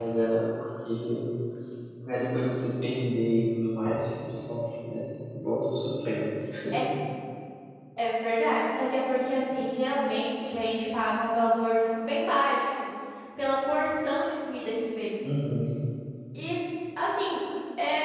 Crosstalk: none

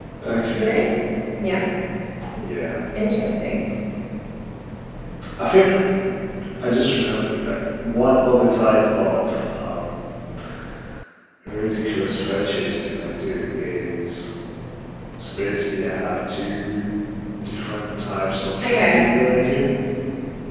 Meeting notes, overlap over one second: none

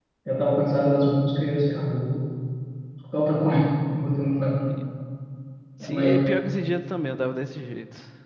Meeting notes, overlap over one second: none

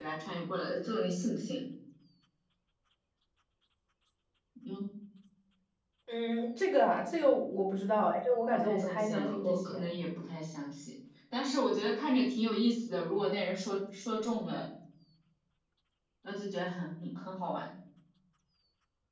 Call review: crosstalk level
present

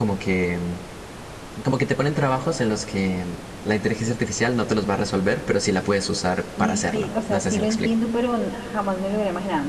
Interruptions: present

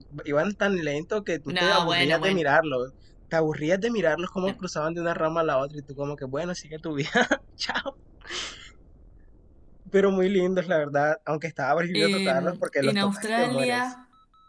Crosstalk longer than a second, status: present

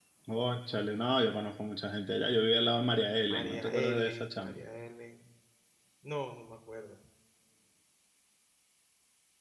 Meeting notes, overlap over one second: present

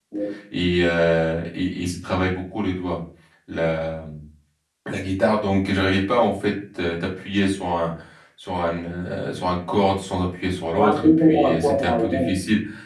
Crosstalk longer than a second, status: present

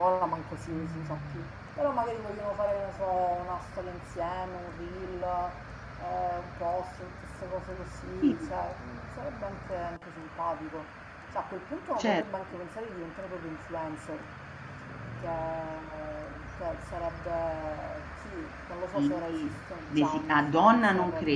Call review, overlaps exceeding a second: present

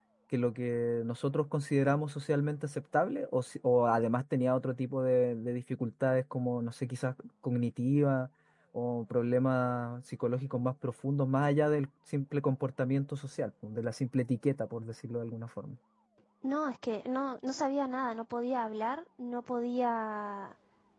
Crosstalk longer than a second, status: none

